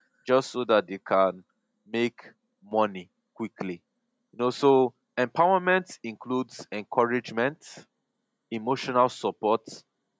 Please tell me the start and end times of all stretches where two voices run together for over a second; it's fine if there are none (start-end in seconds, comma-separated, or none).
none